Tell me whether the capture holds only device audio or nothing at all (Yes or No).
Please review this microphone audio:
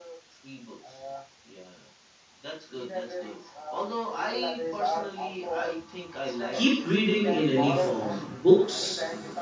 No